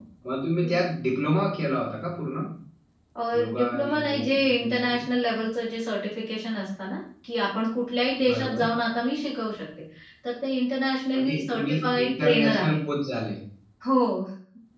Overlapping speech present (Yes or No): Yes